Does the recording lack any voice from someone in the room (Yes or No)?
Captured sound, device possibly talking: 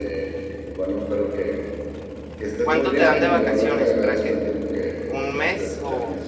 No